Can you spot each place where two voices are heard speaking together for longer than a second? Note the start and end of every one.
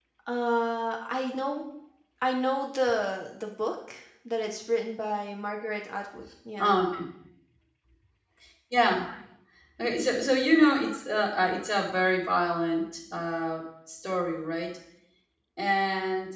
none

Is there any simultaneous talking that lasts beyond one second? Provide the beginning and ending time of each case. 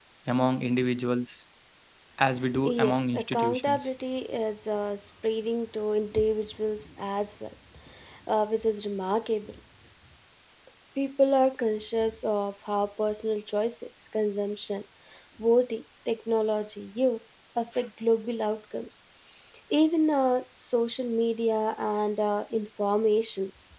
2.6-3.9

